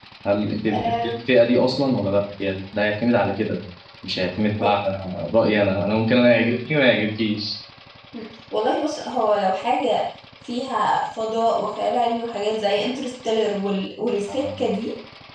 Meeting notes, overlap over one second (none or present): none